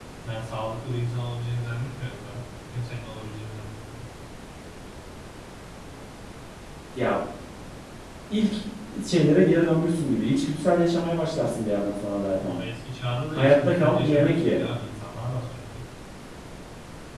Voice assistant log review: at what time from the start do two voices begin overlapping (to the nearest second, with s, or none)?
13 s